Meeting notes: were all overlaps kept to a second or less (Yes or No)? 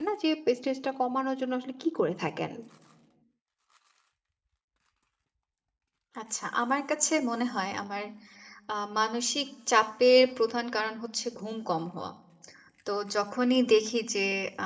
Yes